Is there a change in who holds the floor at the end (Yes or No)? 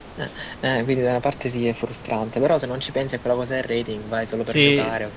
Yes